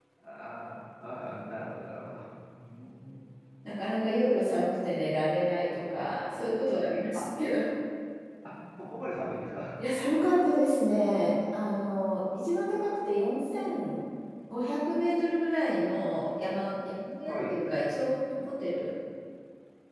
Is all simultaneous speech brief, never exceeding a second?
Yes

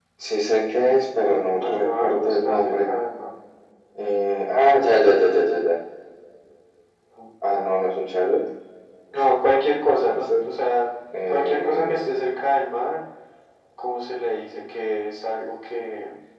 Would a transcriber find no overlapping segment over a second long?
No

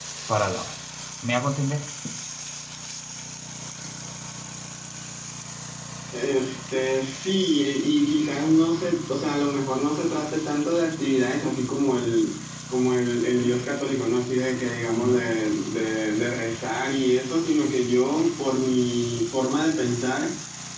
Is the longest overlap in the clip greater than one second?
No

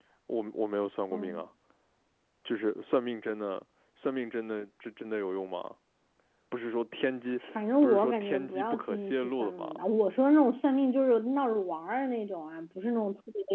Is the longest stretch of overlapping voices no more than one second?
No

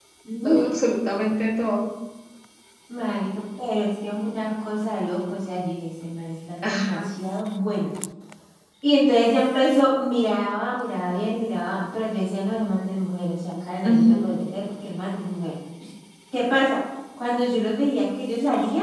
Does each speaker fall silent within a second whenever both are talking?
Yes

